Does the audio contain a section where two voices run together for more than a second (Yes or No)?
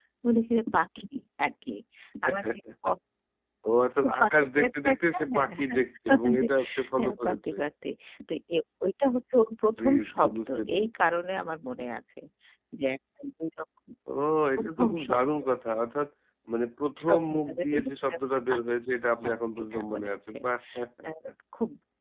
Yes